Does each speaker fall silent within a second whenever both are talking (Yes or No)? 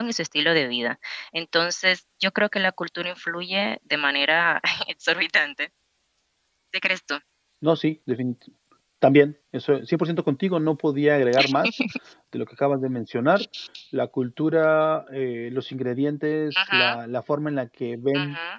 Yes